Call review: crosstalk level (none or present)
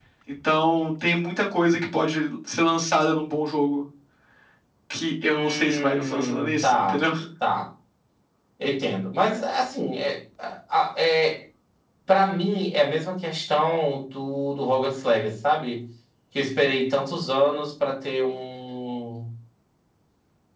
present